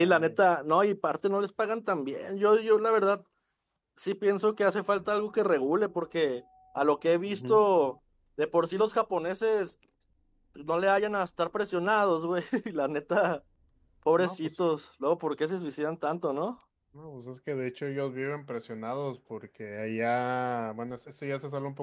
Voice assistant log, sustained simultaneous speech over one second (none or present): none